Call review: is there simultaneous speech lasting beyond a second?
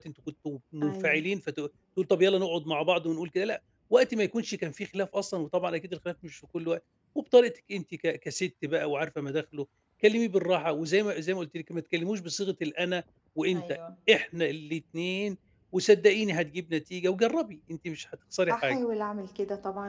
No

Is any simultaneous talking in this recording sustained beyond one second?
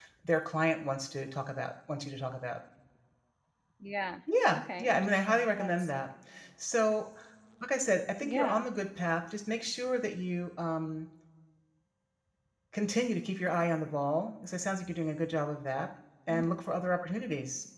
Yes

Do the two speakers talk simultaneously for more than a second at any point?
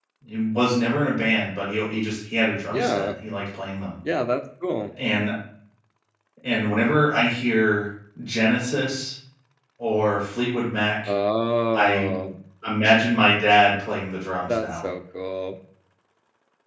No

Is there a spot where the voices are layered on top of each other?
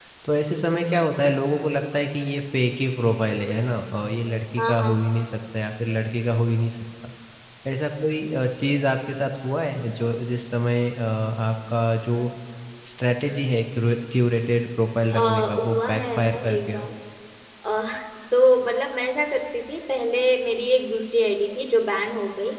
Yes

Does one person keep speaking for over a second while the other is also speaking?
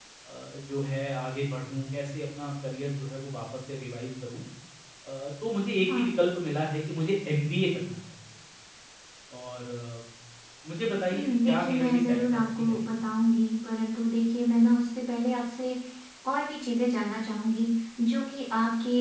Yes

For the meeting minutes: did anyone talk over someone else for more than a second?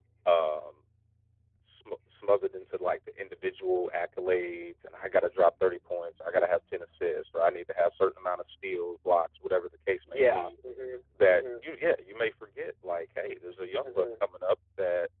No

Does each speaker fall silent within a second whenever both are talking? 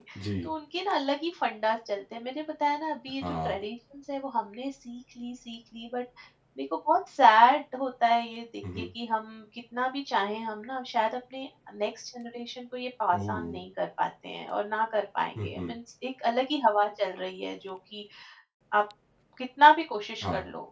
Yes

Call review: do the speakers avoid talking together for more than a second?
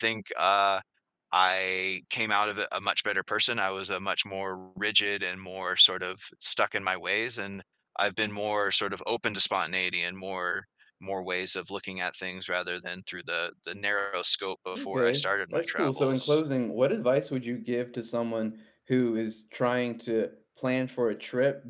No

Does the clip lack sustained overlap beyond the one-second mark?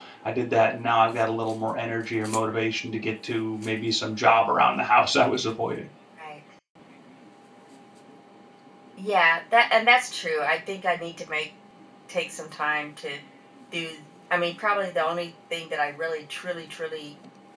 Yes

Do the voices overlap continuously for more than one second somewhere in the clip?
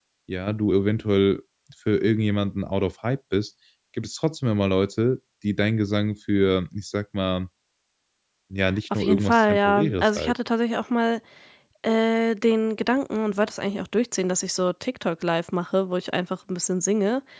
Yes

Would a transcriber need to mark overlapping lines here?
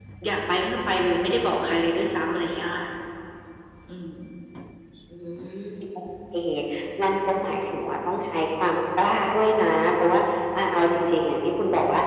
No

